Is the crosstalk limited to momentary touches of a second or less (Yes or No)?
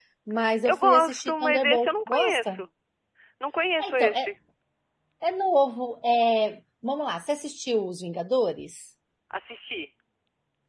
No